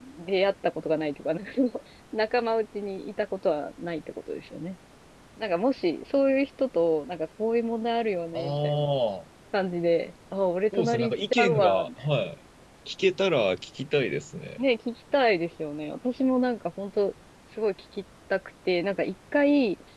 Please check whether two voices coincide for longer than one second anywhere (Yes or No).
Yes